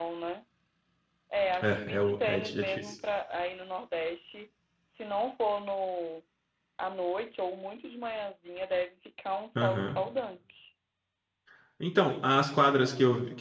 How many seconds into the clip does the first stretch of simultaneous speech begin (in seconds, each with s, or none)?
1.6 s